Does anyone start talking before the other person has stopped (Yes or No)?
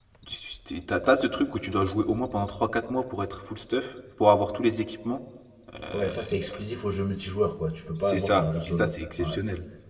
Yes